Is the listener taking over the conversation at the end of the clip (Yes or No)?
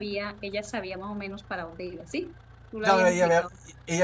Yes